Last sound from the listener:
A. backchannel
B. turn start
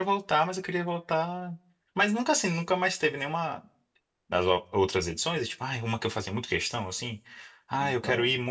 A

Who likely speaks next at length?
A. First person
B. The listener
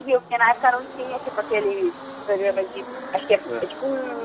A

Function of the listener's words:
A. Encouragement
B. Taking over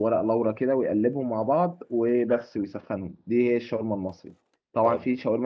A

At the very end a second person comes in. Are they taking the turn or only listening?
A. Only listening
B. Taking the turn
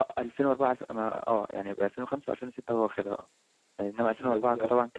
A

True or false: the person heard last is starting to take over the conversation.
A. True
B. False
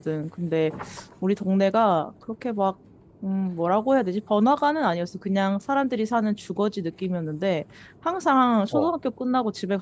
B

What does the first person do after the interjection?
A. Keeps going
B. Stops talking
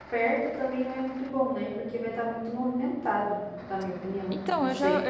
B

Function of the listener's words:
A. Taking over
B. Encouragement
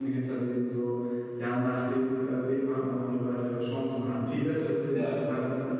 B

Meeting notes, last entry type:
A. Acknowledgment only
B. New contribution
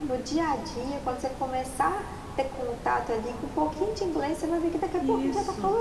B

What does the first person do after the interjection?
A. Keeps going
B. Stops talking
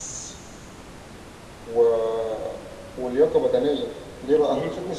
A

